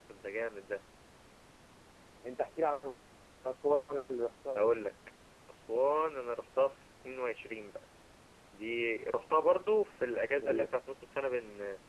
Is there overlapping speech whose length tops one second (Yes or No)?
No